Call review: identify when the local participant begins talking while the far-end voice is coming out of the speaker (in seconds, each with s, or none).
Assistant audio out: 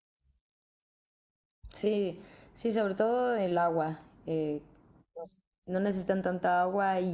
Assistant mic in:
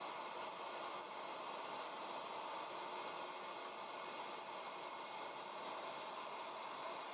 none